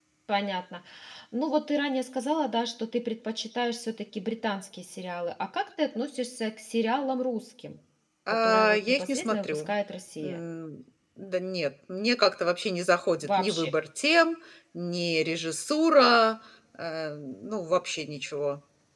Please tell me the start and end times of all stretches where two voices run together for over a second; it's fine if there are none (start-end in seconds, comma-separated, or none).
8.3-9.7